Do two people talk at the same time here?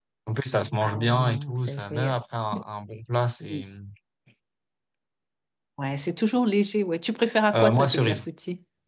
Yes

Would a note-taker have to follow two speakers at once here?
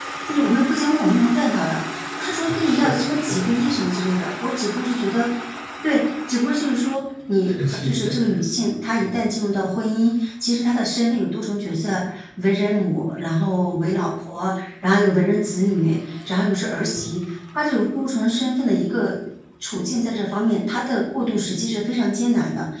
Yes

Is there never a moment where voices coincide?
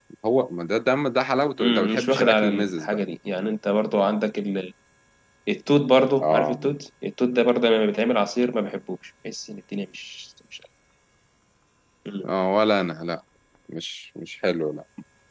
No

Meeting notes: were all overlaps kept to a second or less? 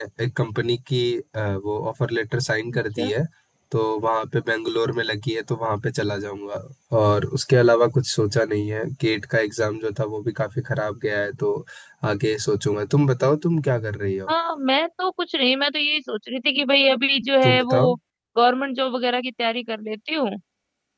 Yes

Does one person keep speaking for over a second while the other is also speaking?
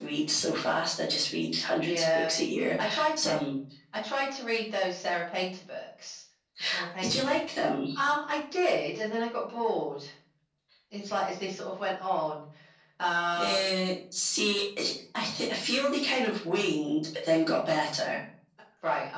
No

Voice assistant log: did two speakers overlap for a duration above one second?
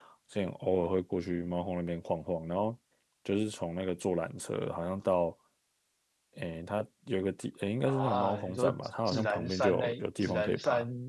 Yes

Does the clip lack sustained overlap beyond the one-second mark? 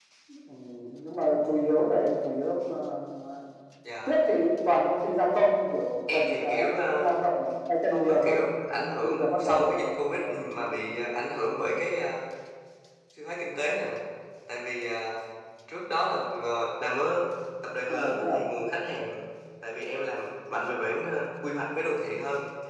No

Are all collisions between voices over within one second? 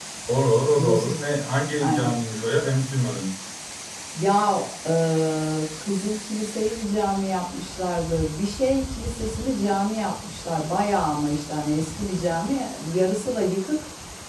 Yes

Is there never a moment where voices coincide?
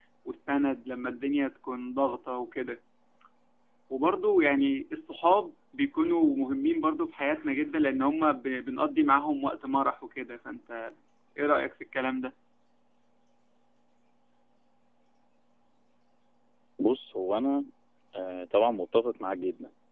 Yes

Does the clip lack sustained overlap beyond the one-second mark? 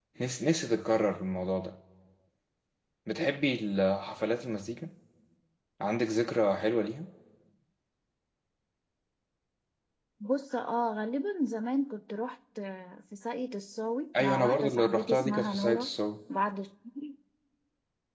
No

